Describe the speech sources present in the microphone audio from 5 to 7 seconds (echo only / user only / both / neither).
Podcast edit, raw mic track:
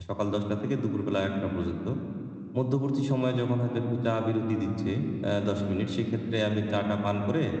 user only